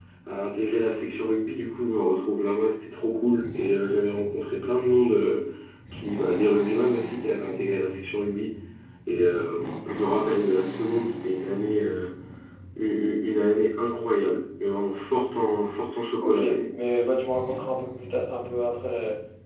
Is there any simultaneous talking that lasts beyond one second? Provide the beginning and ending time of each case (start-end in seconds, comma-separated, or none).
none